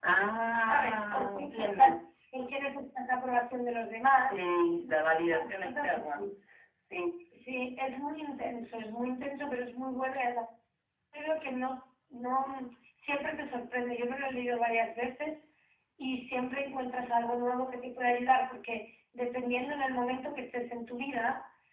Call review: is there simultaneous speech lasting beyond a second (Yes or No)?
Yes